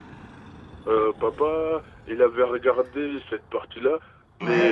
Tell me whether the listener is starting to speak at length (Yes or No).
No